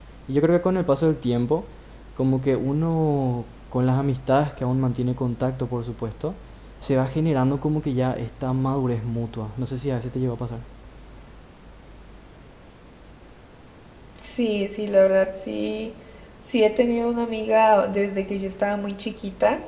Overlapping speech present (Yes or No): No